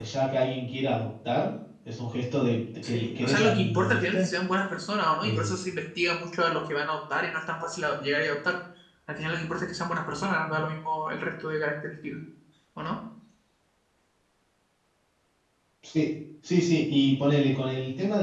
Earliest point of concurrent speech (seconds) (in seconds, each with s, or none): 2.8 s